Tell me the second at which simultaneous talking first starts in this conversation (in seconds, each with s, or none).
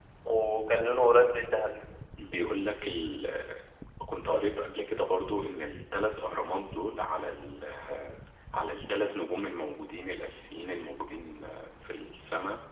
none